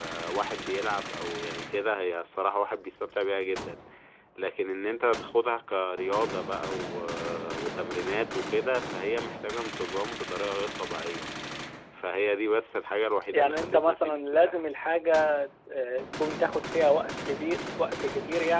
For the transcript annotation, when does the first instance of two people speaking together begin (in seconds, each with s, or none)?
13.3 s